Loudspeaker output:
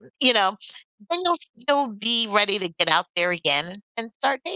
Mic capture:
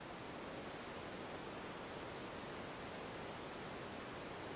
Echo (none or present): none